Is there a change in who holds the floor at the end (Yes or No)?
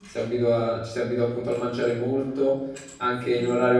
No